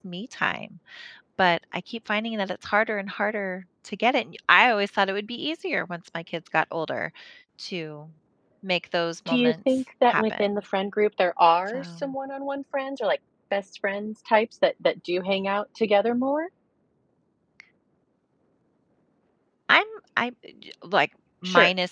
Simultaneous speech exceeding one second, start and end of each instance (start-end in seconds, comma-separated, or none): 9.3-10.5